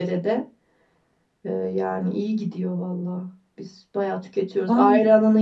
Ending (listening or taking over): listening